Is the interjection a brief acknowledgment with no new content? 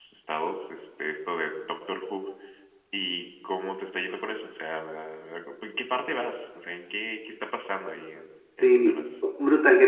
No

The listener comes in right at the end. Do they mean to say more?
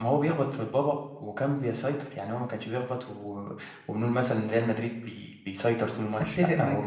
Yes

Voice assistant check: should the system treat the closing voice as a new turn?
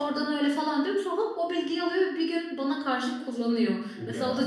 No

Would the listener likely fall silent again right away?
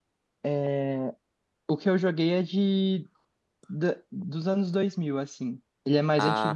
Yes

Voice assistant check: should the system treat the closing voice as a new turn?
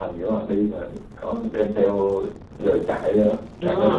Yes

